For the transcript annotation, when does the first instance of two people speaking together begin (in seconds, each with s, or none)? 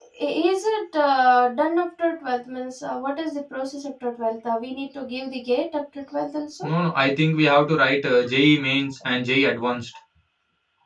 none